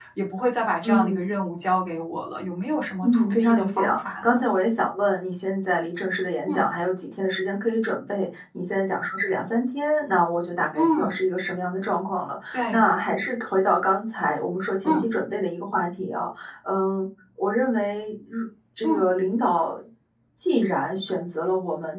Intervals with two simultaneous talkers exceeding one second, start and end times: 3.0-4.4

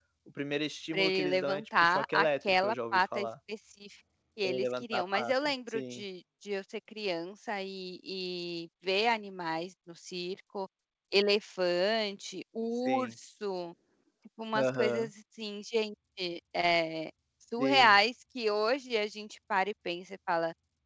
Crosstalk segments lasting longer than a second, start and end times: 0.9-3.3, 4.4-6.0

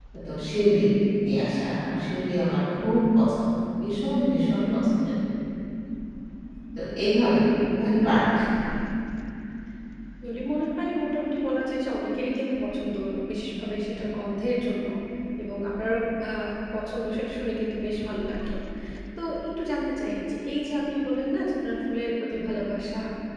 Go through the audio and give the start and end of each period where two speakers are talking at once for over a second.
none

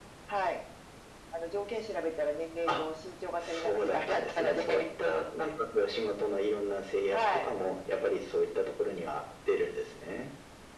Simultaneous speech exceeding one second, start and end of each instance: 3.4-4.8

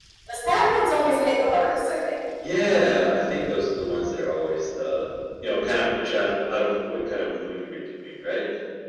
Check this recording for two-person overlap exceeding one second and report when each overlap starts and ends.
none

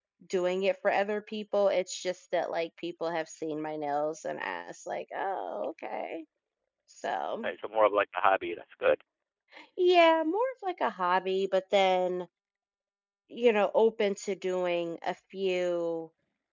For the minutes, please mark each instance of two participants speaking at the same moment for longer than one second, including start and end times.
none

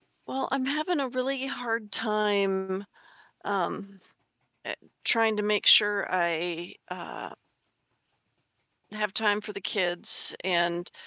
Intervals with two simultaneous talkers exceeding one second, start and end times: none

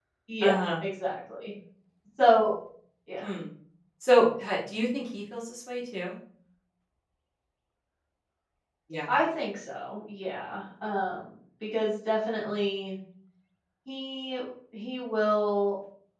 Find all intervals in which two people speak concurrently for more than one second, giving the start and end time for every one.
none

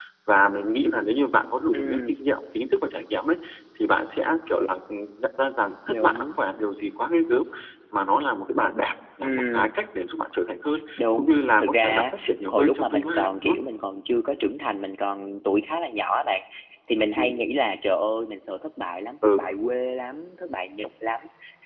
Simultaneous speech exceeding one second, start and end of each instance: 11.0-13.6

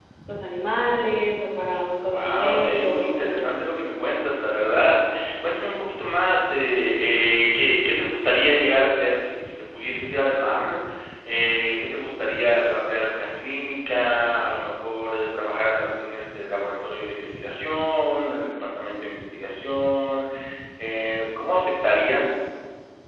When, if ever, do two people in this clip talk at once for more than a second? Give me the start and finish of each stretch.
2.1-3.4

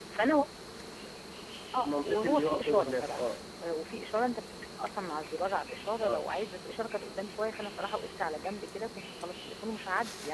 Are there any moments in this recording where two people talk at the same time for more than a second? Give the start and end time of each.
1.8-3.3

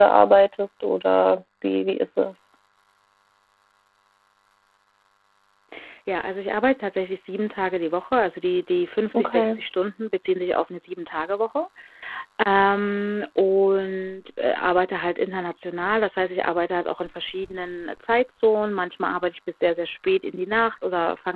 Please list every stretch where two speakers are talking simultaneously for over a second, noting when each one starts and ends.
none

